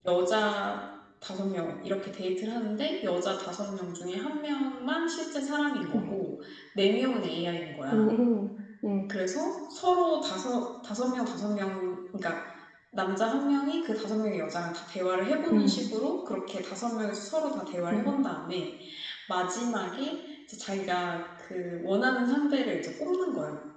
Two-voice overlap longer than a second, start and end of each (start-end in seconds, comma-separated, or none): none